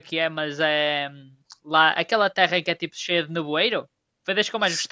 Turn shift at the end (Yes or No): Yes